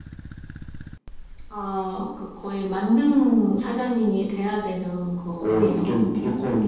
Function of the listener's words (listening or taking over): taking over